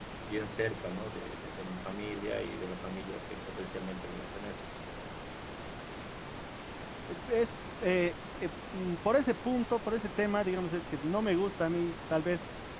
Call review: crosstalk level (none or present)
none